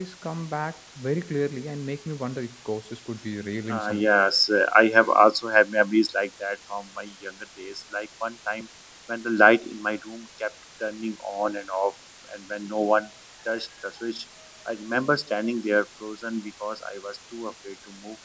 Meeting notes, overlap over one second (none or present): none